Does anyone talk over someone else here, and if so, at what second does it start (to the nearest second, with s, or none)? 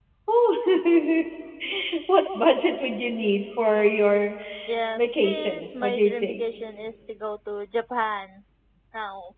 5 s